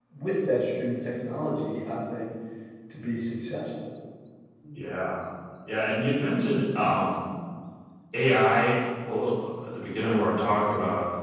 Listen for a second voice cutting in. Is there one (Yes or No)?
No